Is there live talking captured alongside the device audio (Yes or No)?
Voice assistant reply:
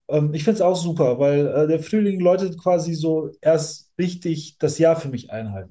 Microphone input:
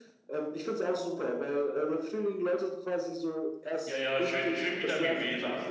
Yes